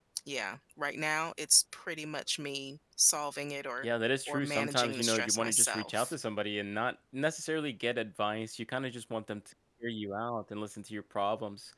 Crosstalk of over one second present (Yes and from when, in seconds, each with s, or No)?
Yes, from 4.3 s